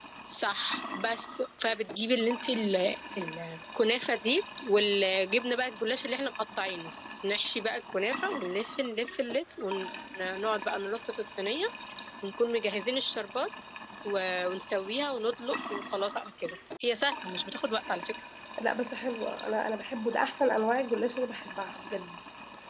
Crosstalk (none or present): none